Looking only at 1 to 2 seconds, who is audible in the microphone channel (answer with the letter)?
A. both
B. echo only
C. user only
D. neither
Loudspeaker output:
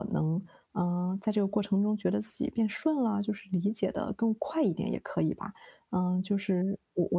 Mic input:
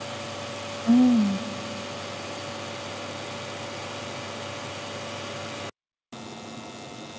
C